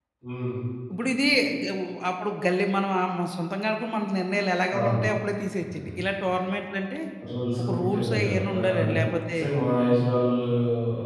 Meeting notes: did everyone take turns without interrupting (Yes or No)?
No